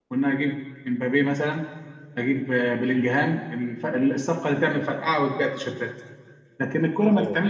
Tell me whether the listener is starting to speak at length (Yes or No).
No